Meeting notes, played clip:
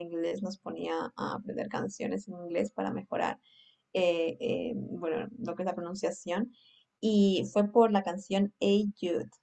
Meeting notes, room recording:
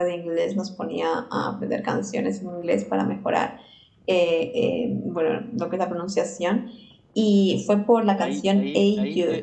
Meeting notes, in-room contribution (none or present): present